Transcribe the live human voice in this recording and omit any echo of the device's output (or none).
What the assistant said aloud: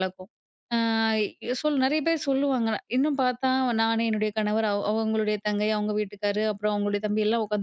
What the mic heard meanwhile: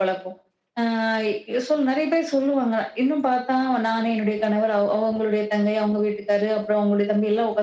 none